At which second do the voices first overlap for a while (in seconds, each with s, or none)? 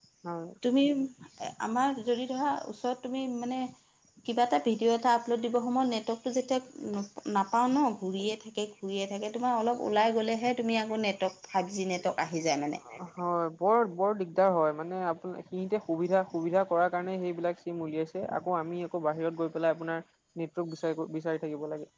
none